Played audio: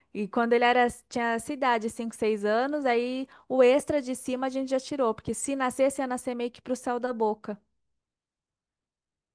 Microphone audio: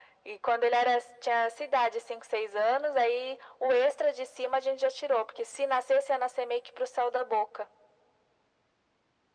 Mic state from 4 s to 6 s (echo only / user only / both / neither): echo only